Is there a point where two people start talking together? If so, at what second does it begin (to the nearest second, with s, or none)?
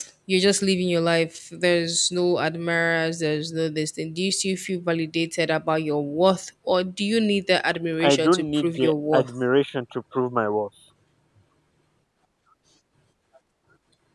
8 s